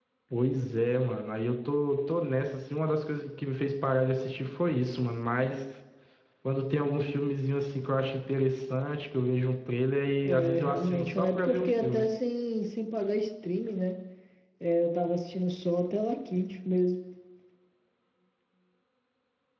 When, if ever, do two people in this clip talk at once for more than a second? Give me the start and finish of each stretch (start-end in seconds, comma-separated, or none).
10.2-12.1